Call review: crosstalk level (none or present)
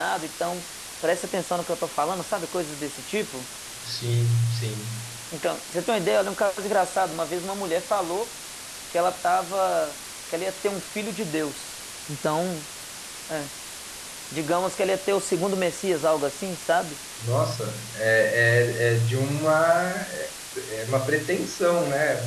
none